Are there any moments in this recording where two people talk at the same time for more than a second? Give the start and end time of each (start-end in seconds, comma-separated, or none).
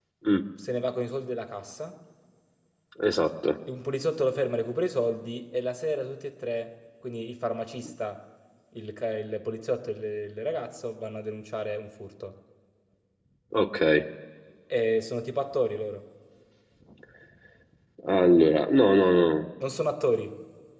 none